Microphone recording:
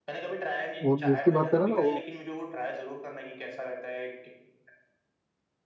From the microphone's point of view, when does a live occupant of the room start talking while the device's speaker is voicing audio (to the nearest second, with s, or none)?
1 s